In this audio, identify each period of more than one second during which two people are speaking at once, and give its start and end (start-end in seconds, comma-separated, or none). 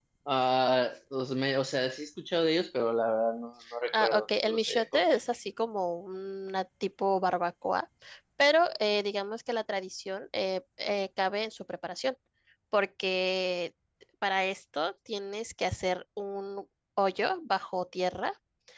3.9-5.2